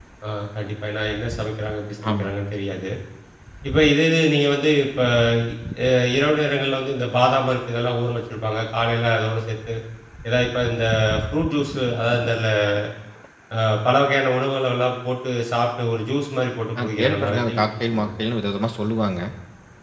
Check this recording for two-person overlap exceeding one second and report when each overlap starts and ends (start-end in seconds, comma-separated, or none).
16.8-18.1